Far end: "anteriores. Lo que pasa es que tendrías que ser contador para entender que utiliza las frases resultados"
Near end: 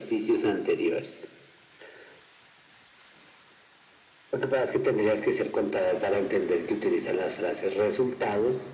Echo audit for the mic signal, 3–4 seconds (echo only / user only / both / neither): neither